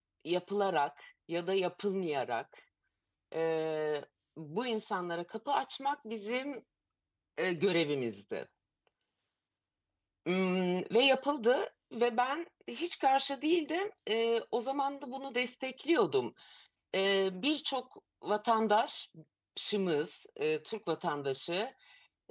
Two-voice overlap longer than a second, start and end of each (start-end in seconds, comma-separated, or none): none